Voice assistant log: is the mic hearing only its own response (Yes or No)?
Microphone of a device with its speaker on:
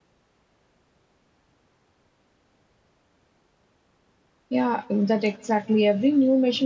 No